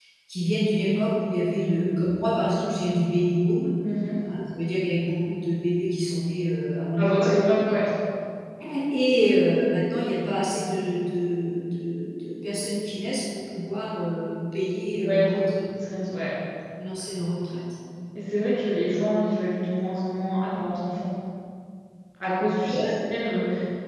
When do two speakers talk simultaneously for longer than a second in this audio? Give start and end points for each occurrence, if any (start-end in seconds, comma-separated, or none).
none